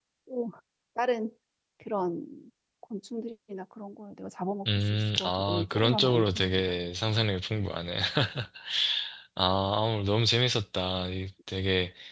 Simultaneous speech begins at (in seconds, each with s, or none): 4.7 s